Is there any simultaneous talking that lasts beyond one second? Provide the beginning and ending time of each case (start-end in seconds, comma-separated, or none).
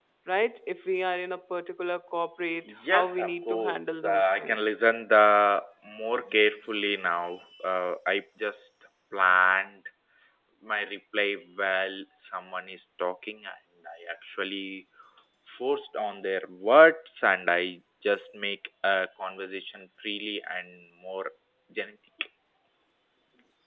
2.9-4.6